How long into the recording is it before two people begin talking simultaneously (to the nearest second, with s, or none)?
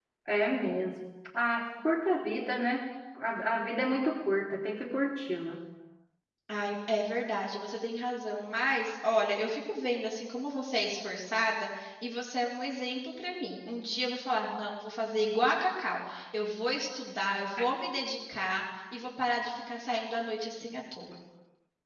none